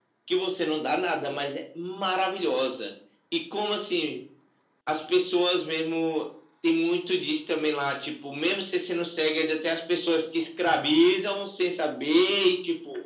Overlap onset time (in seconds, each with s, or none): none